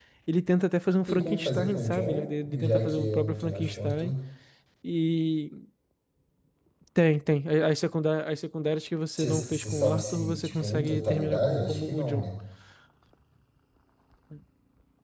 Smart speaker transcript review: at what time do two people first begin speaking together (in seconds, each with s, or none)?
1.1 s